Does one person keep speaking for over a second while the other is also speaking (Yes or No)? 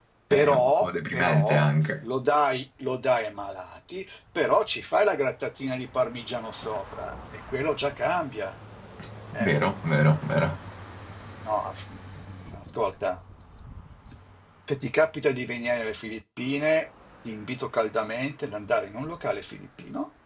Yes